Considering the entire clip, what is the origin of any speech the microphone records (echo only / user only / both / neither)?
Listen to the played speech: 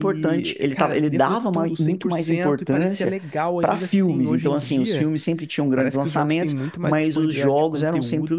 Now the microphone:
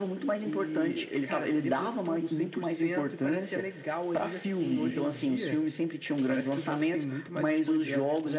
echo only